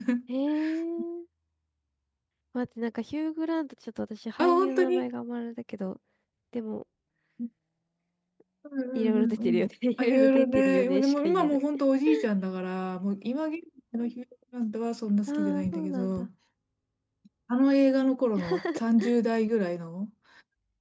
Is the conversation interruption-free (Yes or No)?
No